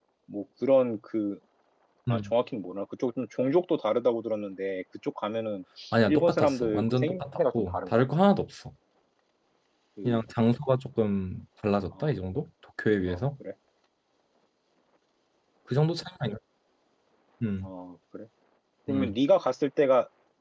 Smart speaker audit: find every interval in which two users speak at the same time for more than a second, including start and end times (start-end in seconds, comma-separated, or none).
6.1-8.0